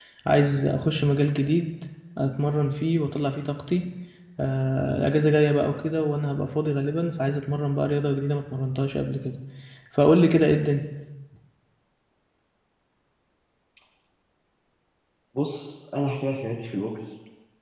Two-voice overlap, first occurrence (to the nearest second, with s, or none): none